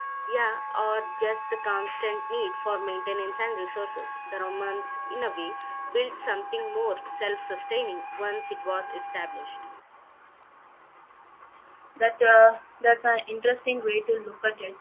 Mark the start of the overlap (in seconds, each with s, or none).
none